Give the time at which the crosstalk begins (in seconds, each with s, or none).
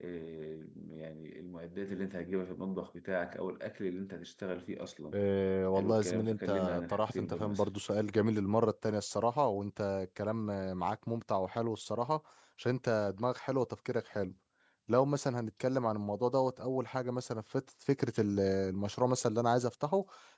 5.7 s